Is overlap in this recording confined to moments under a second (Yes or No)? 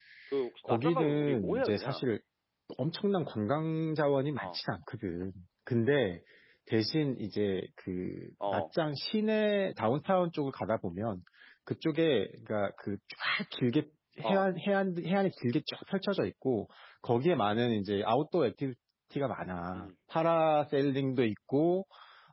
No